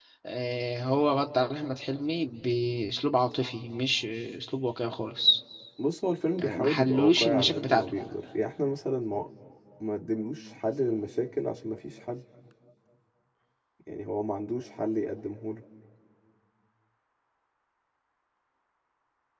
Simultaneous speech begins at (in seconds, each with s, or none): 6.4 s